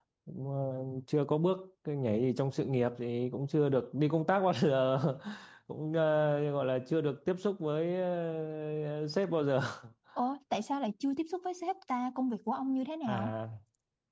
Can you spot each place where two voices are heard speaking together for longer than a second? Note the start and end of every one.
none

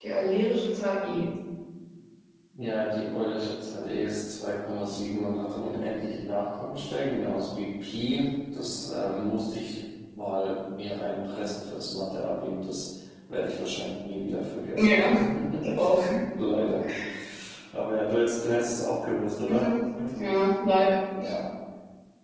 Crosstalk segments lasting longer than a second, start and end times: none

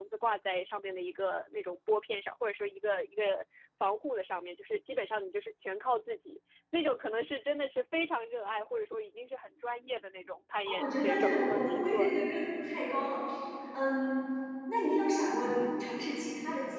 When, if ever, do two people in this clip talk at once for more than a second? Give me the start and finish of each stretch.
10.8-12.1

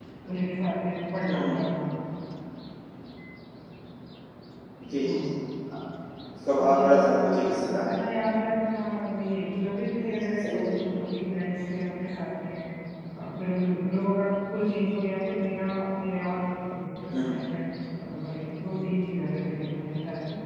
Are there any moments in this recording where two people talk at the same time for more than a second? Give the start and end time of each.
6.6-7.9

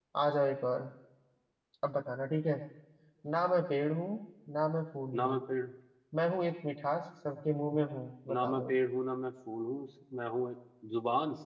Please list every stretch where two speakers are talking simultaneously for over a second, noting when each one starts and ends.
none

